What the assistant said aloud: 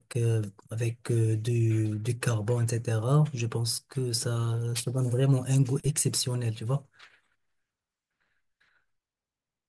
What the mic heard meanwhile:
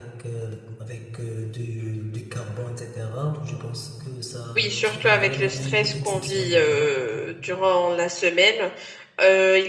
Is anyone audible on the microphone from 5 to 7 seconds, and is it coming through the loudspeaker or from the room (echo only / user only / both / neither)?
both